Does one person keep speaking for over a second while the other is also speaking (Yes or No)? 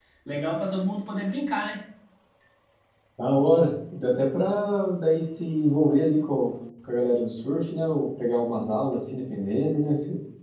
No